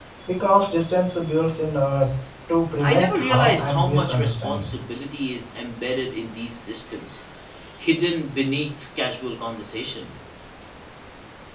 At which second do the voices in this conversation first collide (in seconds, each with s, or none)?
2.8 s